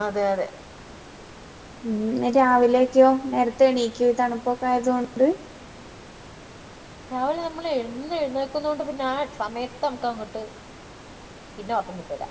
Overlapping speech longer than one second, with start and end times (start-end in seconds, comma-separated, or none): none